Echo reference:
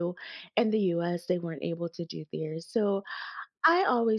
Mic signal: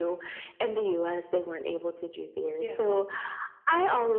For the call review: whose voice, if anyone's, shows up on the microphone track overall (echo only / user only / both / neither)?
both